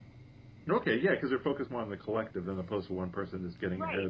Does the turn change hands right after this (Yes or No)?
Yes